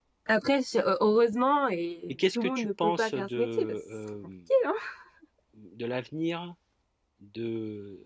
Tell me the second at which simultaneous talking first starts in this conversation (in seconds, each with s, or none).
2.1 s